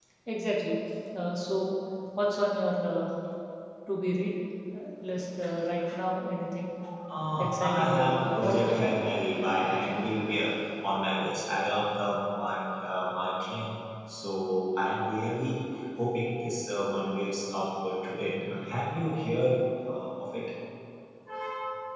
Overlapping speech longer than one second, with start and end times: 7.4-9.0

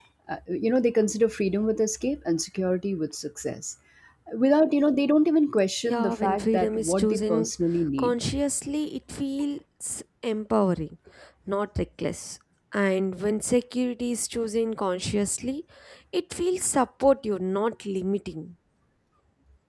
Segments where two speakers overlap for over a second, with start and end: 5.8-7.5

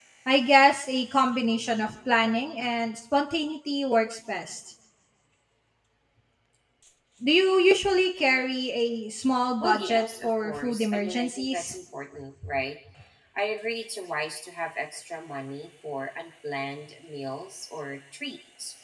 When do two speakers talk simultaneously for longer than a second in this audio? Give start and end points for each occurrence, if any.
9.6-11.8

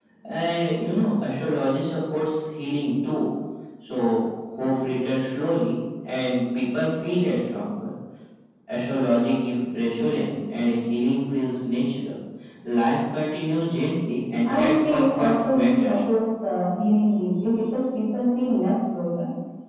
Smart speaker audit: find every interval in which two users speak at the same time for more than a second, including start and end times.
14.4-16.0

